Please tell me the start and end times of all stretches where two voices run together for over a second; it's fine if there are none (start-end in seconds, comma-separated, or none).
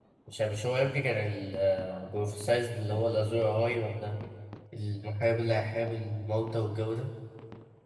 none